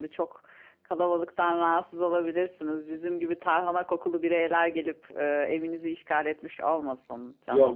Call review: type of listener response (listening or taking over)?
taking over